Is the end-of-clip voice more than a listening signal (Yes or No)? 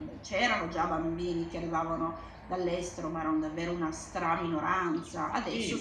Yes